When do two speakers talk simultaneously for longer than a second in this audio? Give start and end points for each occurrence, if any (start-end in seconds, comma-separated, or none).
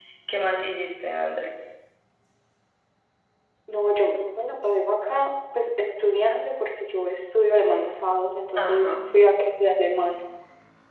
none